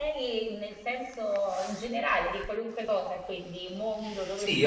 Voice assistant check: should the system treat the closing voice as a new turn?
Yes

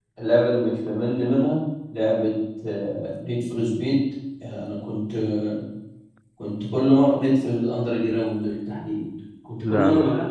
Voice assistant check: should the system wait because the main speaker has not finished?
Yes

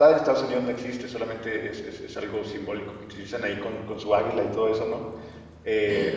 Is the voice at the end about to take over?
No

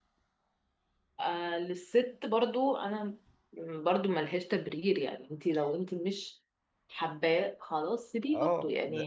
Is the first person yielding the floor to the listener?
Yes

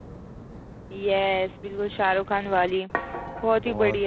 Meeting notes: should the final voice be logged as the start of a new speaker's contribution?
Yes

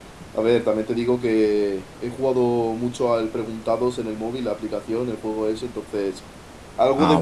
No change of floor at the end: No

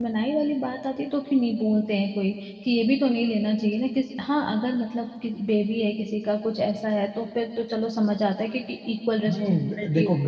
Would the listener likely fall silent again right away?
No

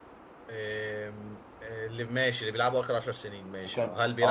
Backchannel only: No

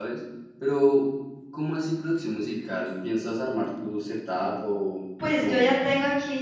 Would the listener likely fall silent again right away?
No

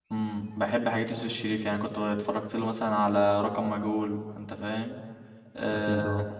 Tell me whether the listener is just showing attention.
Yes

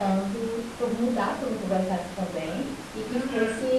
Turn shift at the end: No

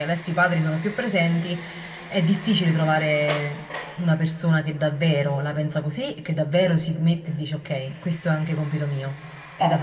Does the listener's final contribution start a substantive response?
Yes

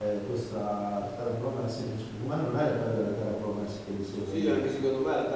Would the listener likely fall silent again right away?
No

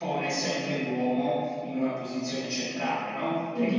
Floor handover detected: No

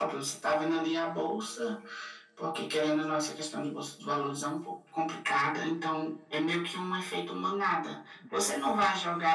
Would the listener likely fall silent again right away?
Yes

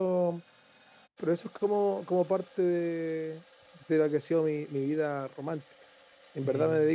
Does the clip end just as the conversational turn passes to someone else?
No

